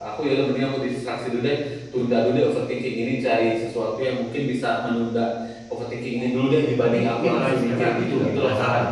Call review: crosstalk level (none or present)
present